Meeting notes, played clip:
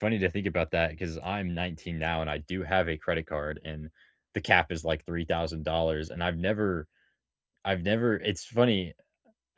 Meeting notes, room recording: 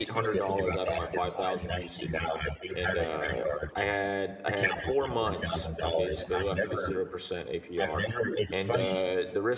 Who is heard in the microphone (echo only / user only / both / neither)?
both